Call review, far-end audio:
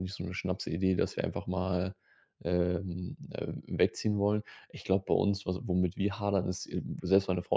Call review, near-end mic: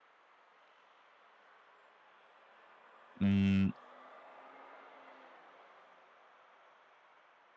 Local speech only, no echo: Hm,

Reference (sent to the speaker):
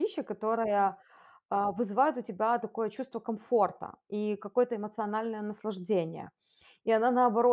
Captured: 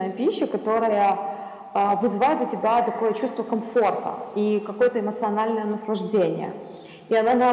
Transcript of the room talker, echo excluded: none

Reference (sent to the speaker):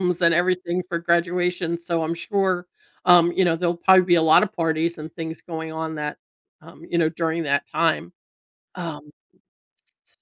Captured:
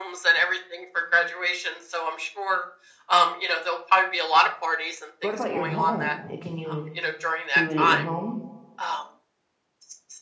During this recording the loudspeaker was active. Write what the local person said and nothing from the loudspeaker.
What about your home? Eh, can you do it at your home?

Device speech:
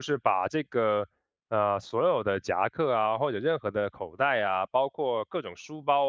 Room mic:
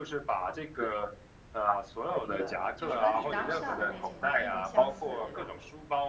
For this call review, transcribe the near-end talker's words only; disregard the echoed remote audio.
明白了，就是跟你当下的那个情况非常相似的，对吧？

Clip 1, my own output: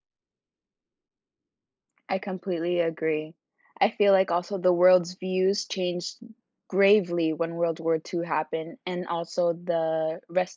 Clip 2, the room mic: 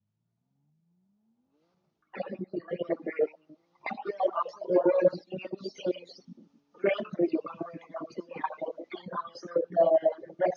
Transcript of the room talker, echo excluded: none

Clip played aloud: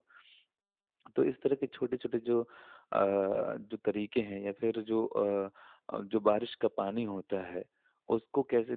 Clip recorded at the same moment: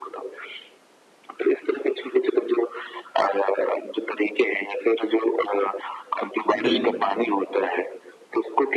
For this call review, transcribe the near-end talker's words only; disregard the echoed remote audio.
हाँ। बिल्कुल सही बात।

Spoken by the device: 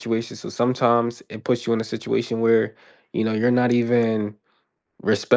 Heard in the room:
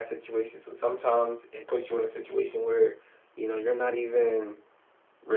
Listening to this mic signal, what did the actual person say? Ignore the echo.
none

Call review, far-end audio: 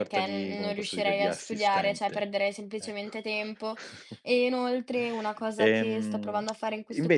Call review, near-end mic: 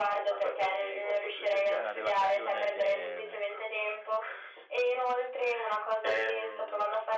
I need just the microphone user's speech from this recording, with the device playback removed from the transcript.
è una relazione che mhmm,

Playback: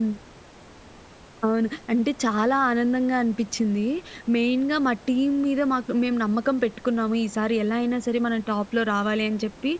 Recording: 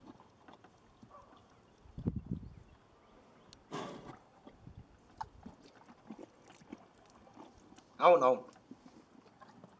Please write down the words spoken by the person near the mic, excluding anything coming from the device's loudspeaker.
అవునవును.

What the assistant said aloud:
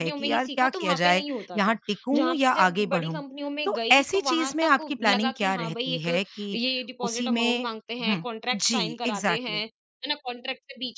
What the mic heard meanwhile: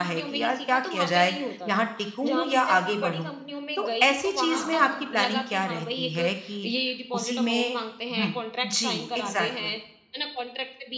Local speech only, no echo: हाँ,

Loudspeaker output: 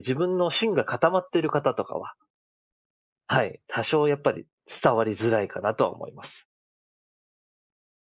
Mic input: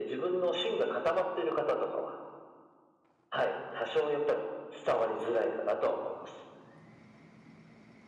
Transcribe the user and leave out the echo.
none

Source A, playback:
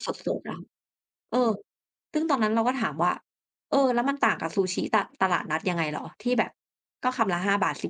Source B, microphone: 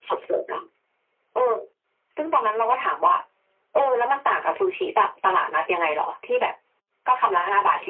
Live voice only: none

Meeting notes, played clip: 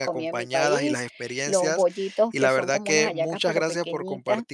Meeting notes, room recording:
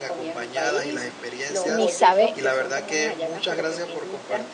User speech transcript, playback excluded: ni sabe,

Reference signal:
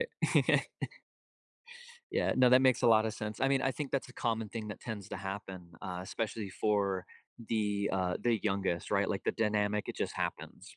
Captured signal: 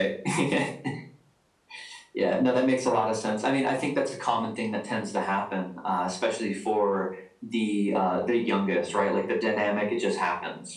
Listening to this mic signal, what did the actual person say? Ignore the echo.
none

